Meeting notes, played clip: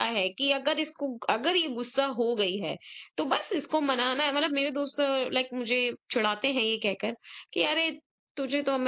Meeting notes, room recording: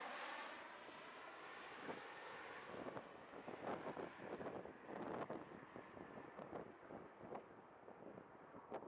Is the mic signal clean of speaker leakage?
Yes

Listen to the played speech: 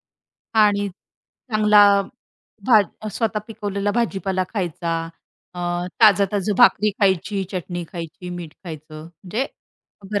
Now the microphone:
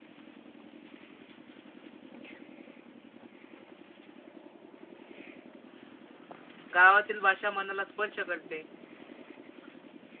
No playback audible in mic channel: Yes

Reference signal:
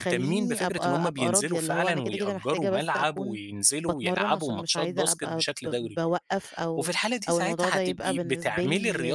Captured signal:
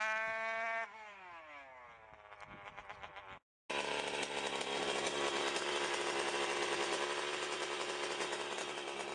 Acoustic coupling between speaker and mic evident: No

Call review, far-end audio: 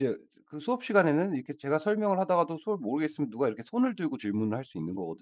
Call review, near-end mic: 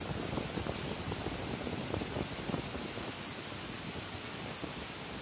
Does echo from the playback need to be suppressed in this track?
No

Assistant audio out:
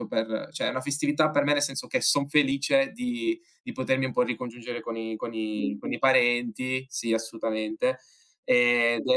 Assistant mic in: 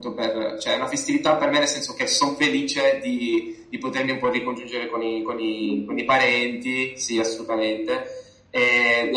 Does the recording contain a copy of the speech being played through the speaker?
Yes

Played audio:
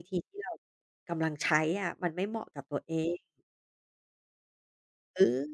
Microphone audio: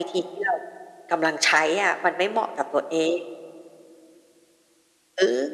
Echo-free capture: No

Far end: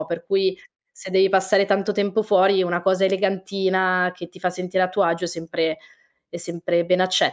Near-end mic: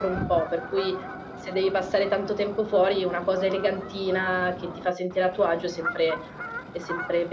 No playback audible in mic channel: No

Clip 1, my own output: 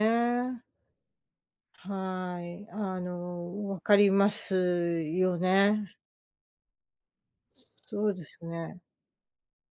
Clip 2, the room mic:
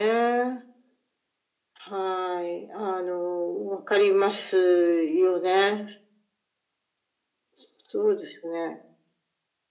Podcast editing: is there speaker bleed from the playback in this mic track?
Yes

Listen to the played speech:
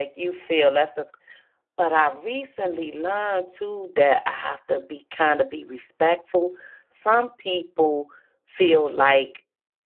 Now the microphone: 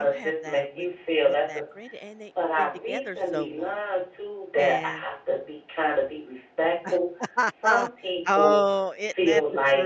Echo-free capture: No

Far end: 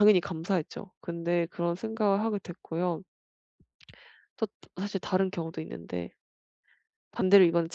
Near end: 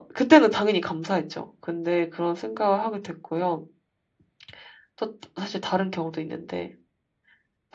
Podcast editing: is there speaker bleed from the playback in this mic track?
Yes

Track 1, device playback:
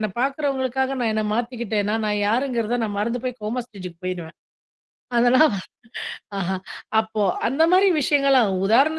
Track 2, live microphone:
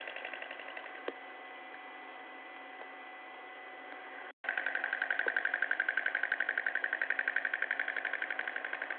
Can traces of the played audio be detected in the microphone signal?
No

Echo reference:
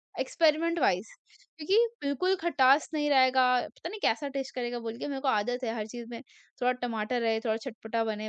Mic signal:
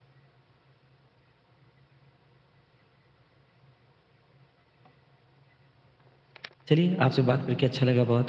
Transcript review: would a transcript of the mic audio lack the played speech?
Yes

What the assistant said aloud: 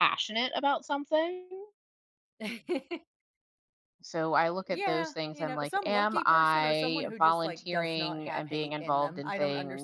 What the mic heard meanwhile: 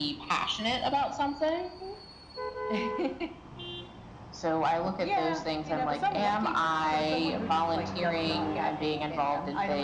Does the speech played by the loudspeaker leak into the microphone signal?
Yes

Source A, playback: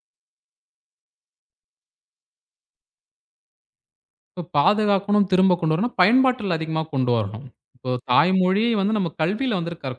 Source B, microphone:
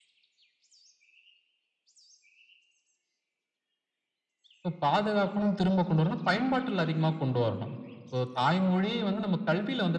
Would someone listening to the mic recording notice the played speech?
Yes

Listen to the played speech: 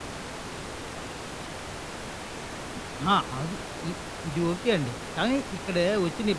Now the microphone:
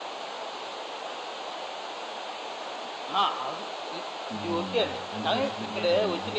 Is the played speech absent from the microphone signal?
No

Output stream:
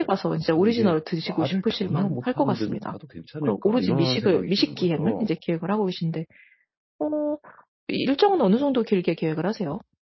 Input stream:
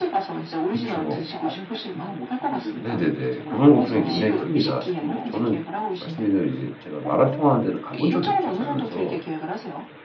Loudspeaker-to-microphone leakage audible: Yes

